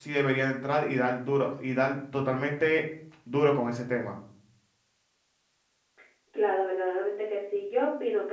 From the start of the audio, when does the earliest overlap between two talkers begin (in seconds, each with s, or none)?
none